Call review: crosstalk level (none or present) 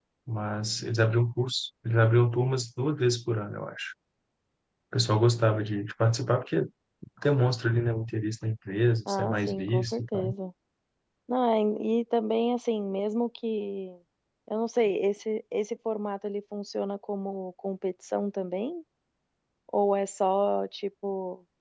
present